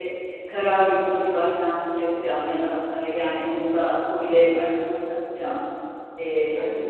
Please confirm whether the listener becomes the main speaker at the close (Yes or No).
No